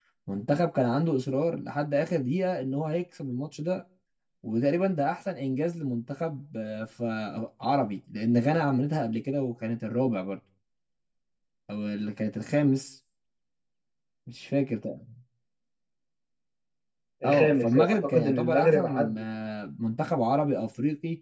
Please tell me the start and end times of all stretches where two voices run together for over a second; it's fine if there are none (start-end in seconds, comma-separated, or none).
17.2-19.2